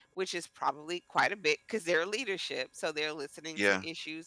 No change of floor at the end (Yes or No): Yes